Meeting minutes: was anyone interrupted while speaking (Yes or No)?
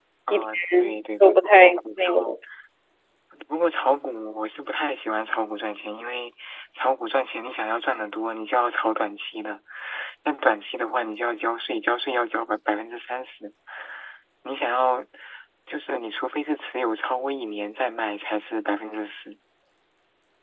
Yes